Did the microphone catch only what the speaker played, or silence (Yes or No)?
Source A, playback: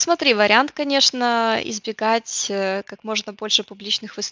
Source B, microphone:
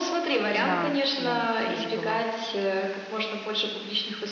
No